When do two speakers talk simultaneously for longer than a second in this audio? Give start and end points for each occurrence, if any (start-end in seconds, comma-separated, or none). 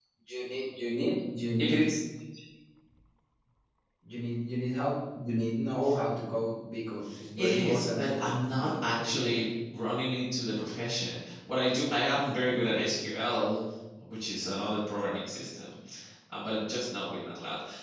7.4-9.4